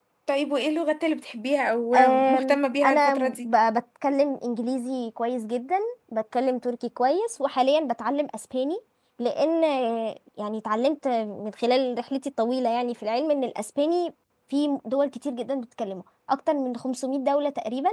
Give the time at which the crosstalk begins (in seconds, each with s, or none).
1.9 s